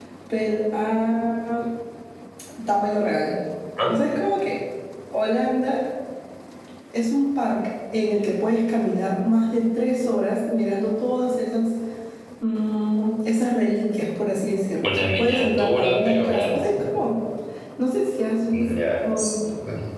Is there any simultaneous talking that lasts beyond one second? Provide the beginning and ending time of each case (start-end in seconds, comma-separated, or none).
14.8-16.7